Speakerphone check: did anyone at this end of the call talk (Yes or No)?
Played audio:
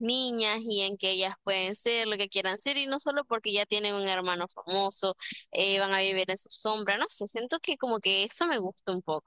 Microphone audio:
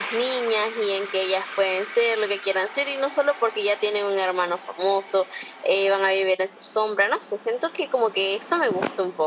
No